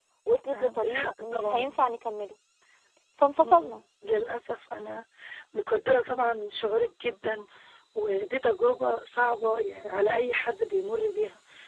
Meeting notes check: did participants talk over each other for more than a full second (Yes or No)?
Yes